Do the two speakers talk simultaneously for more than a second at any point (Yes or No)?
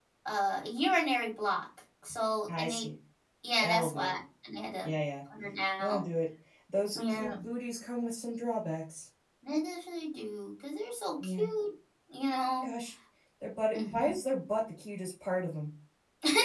No